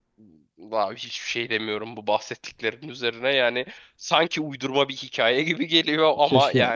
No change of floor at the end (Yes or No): No